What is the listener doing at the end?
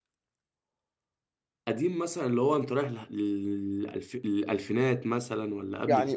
taking over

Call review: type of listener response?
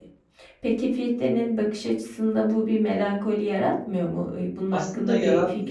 taking over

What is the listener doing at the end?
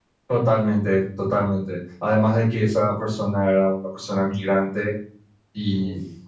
listening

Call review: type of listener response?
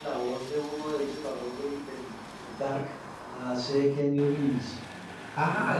taking over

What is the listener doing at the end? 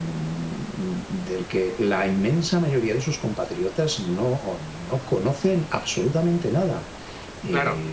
taking over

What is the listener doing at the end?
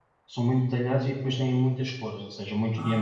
listening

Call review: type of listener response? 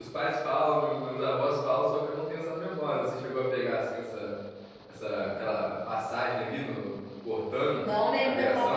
taking over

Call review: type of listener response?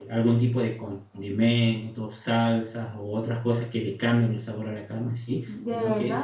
listening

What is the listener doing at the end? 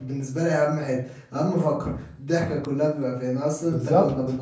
listening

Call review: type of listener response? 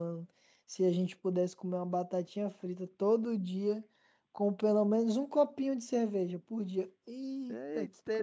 taking over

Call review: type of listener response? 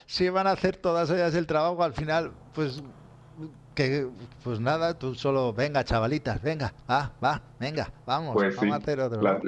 taking over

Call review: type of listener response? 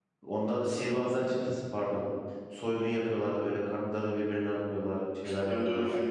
taking over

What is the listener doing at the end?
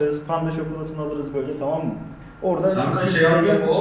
taking over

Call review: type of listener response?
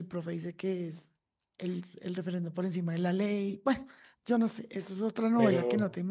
taking over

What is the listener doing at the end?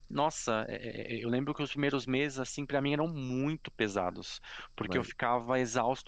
listening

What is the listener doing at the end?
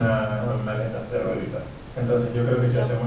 listening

